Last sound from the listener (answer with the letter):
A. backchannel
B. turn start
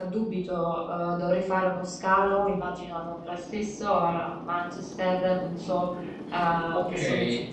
B